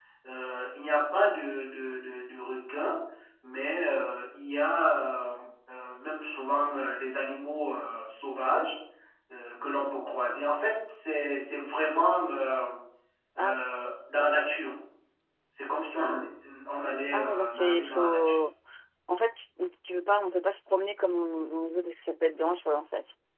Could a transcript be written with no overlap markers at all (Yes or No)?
No